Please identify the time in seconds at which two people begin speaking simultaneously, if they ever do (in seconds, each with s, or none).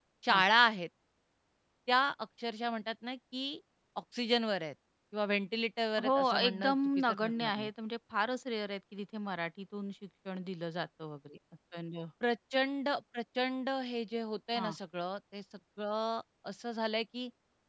6.0 s